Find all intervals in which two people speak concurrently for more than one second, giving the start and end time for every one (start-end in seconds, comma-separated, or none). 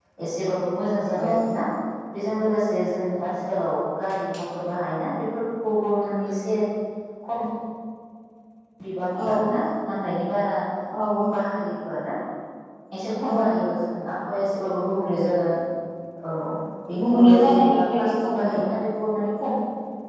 17.0-18.6